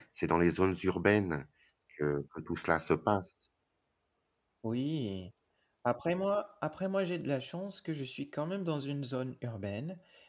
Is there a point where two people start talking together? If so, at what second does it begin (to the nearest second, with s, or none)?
none